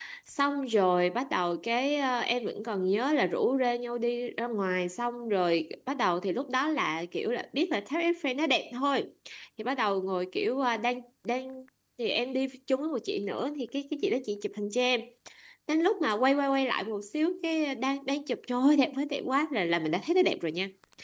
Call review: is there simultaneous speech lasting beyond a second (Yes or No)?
No